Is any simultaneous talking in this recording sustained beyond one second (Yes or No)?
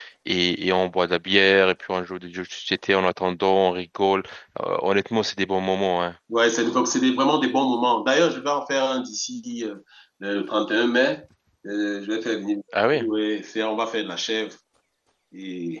No